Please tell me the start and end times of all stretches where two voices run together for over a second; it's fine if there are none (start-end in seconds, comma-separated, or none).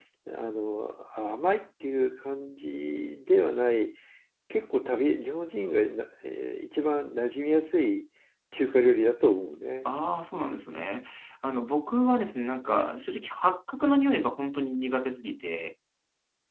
none